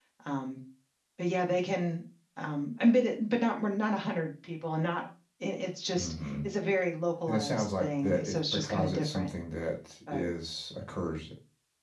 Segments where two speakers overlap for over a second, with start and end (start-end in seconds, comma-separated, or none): 7.3-9.3